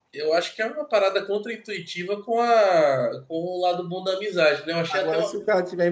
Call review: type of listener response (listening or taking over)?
taking over